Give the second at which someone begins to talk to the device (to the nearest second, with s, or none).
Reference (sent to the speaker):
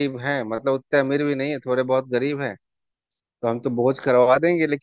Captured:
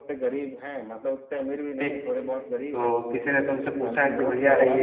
2 s